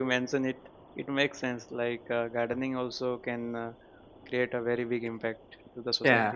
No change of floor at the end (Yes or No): No